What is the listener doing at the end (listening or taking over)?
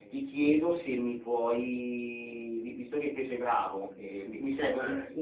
listening